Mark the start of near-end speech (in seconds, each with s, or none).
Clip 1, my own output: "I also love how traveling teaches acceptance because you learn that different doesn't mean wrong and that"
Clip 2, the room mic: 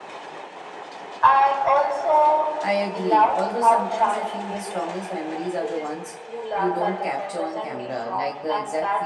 2.6 s